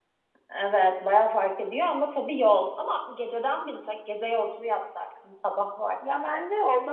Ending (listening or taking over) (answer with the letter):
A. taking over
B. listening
A